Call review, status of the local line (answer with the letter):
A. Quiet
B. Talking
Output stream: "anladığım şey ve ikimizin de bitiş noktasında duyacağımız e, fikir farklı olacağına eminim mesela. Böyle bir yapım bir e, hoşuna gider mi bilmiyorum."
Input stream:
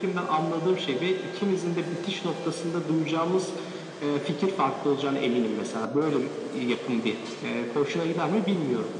A